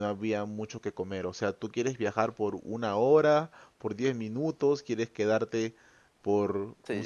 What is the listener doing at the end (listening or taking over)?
taking over